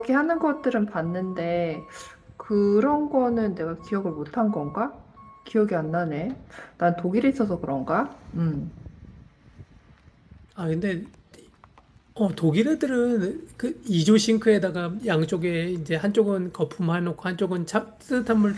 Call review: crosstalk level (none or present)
none